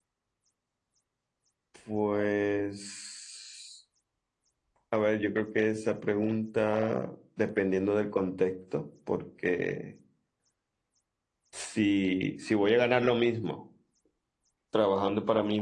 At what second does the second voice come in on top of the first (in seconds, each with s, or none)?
none